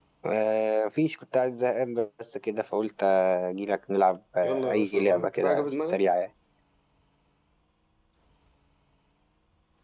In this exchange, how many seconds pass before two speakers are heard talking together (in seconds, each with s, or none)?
4.4 s